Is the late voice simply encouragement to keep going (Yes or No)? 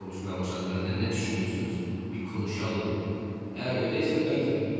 Yes